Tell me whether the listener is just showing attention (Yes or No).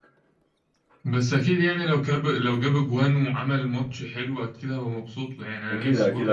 No